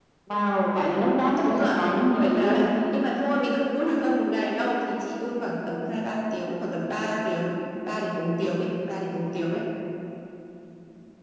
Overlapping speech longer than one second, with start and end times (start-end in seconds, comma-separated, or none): 1.4-2.9